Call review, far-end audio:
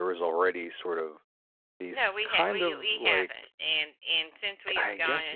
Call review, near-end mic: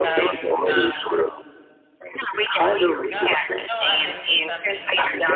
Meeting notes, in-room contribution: present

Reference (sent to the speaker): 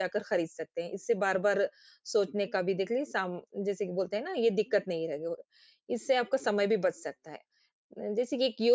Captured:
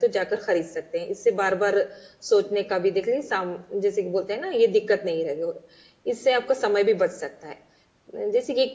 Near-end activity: none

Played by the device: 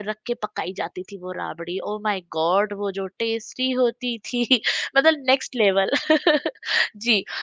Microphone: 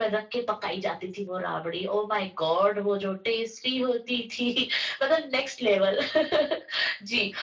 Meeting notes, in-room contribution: none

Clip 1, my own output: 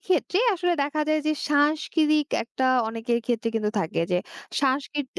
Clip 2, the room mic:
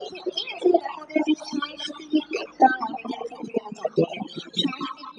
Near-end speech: none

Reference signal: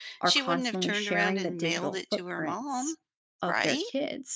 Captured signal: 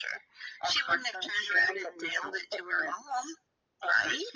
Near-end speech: none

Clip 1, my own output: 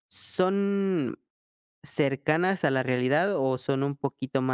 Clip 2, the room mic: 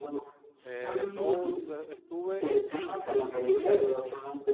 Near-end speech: present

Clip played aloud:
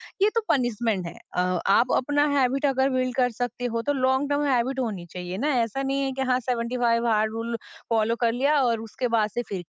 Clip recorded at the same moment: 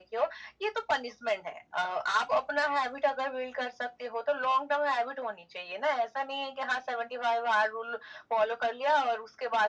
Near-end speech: none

